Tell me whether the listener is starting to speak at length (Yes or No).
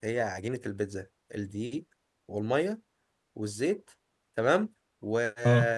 No